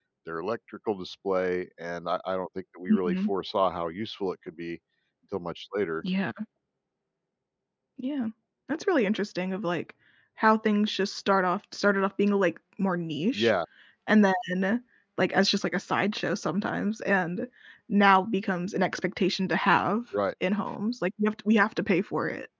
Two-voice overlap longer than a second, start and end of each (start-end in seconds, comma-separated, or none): none